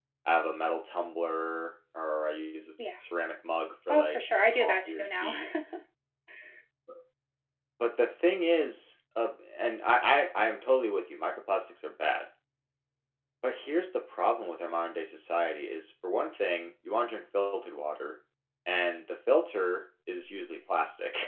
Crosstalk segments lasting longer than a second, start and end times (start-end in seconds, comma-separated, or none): 3.9-5.4